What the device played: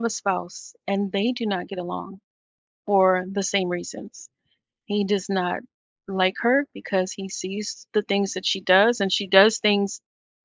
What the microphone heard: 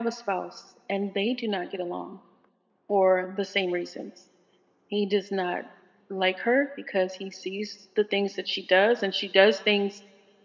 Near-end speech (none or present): none